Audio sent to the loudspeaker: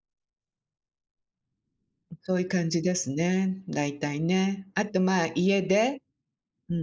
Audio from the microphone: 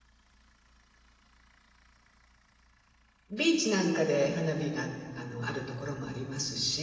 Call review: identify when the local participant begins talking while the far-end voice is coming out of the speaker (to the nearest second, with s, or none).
3 s